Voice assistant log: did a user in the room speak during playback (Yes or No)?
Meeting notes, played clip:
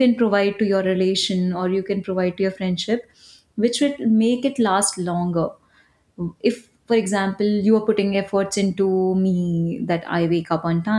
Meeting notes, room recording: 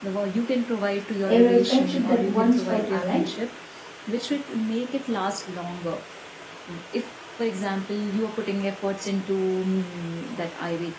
Yes